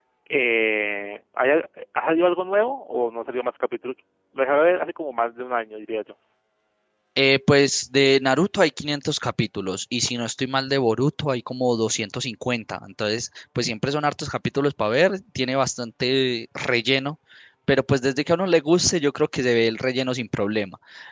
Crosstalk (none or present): none